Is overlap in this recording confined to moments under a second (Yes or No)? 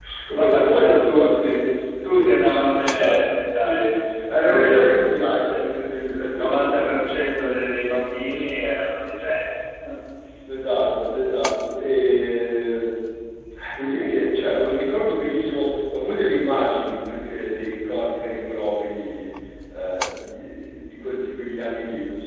No